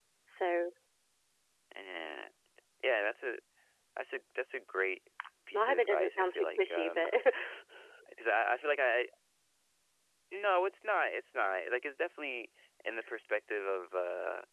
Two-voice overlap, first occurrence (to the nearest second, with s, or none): 6 s